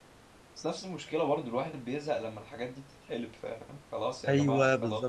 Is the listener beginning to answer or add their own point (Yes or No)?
Yes